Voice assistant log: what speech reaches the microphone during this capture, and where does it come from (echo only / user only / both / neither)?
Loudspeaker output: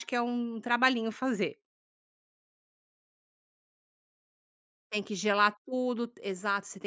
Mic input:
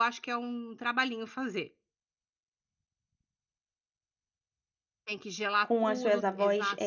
both